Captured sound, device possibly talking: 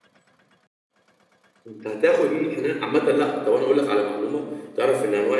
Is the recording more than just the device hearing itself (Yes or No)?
Yes